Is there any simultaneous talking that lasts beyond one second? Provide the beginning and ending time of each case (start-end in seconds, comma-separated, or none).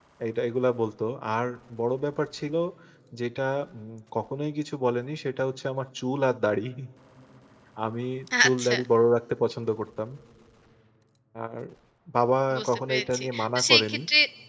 12.6-14.0